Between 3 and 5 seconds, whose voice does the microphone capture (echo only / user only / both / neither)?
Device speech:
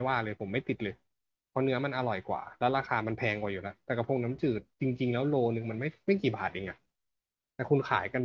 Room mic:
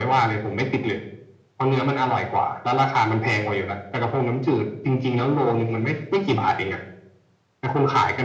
echo only